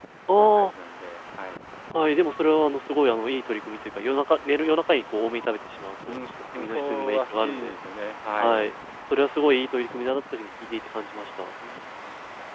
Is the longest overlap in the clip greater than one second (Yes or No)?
Yes